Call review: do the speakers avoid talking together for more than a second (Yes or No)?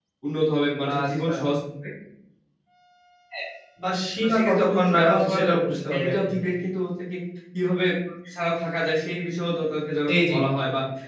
No